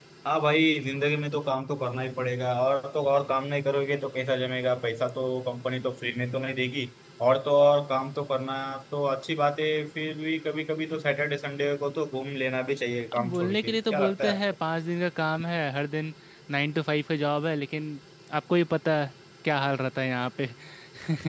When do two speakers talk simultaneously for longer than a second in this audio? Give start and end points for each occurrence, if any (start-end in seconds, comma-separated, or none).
13.1-14.4